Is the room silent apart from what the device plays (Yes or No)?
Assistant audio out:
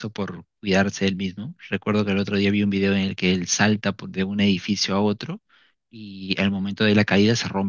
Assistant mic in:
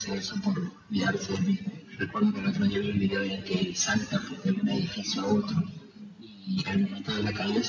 Yes